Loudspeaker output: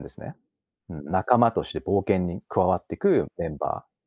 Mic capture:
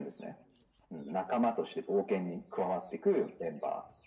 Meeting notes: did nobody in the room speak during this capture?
Yes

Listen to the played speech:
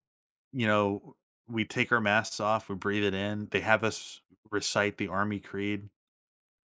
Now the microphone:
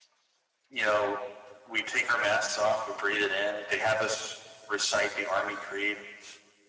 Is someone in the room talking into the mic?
No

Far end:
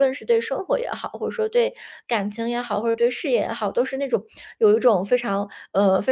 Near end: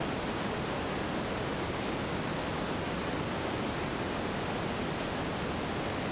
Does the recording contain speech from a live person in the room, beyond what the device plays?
No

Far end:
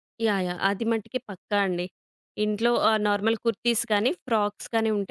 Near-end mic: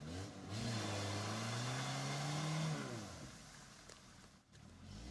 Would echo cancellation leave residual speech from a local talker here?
No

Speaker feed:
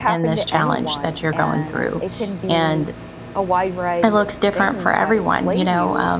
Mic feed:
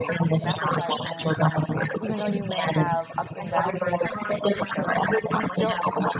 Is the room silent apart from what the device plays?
No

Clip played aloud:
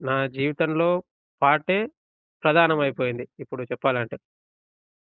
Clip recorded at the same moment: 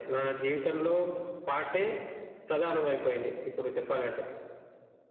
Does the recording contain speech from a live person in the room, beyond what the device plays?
No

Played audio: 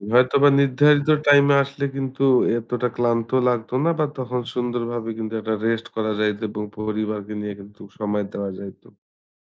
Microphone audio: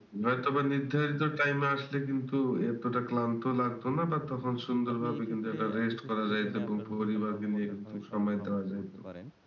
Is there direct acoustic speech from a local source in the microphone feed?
Yes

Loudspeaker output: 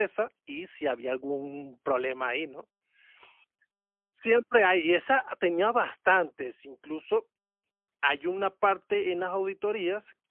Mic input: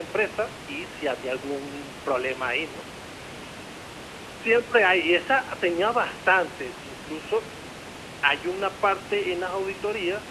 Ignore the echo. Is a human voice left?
No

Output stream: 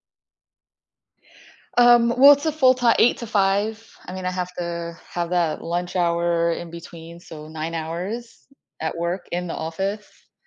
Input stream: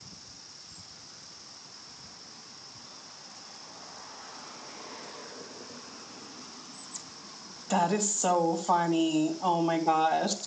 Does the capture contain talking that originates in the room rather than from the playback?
Yes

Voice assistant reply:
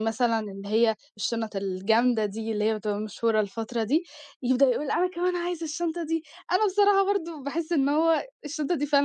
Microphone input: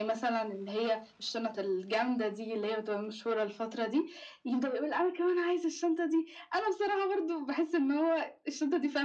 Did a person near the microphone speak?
No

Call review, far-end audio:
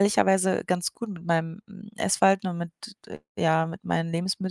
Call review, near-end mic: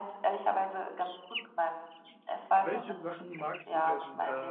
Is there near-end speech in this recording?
Yes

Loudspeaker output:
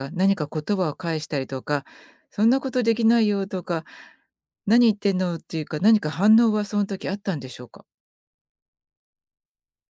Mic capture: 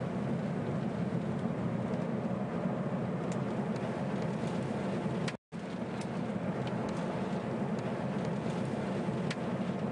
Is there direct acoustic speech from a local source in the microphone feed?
No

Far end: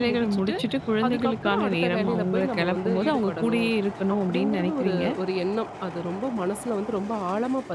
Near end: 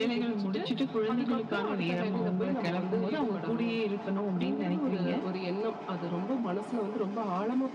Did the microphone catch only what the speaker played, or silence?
Yes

